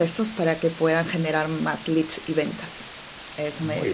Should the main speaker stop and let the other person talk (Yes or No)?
Yes